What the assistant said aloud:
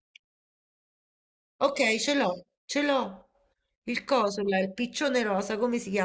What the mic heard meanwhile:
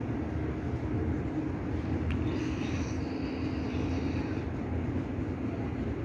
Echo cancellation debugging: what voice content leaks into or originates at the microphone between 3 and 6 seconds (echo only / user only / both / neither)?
neither